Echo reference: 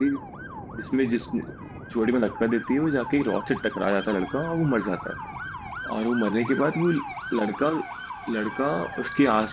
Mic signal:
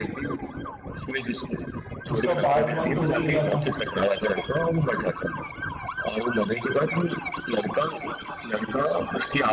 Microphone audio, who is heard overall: both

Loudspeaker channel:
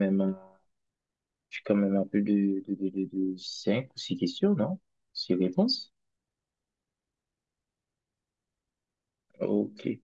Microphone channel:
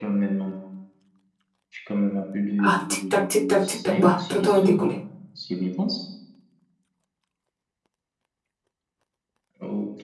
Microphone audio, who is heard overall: both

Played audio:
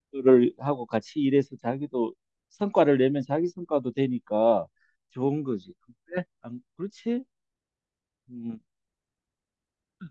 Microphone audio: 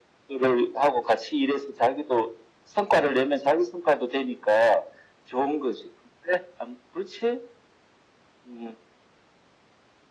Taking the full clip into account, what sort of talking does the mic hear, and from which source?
echo only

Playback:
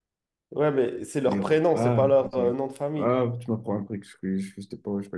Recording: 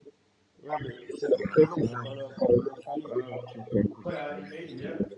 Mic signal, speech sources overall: both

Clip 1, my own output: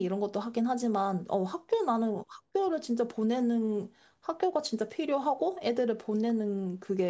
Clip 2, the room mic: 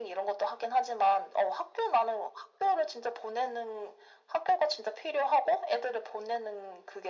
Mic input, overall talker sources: echo only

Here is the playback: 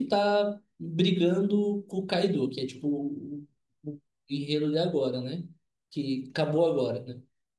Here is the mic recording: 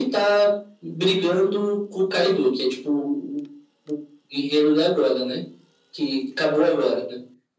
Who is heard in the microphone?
echo only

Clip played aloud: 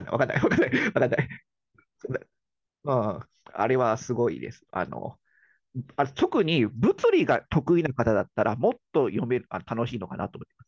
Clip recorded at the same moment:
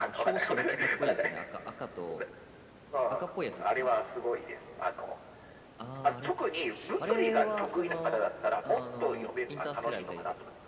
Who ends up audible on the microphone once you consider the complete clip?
both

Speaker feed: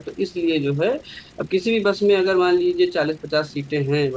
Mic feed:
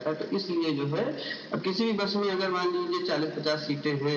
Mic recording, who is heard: echo only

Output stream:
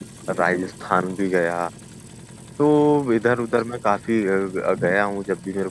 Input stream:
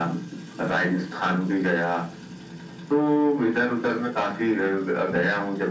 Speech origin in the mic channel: echo only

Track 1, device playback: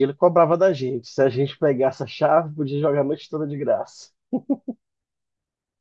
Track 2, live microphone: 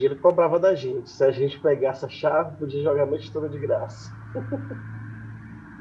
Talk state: echo only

